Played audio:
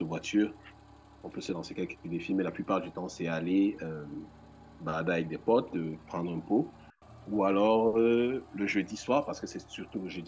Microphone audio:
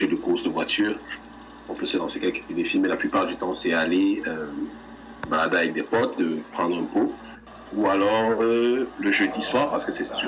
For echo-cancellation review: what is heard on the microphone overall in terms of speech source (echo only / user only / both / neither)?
both